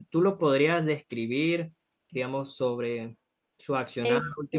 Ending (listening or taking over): listening